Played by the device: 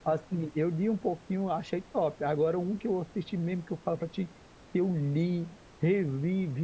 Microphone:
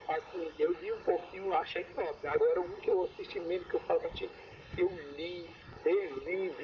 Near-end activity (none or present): none